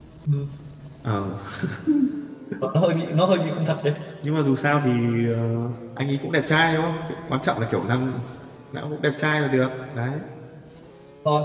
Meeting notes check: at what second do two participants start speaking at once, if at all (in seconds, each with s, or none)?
none